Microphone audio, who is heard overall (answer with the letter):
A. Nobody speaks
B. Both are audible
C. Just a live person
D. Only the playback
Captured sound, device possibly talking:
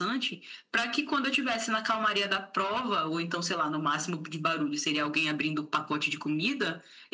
D